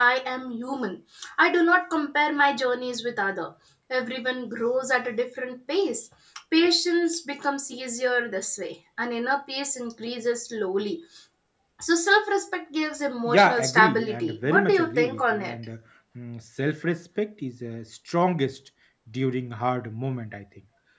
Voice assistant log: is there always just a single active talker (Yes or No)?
No